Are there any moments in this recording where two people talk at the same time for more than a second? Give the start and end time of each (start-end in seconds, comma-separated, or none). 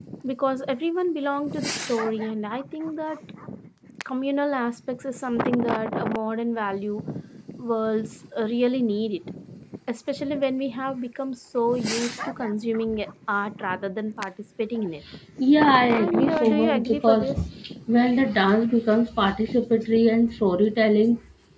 15.9-17.3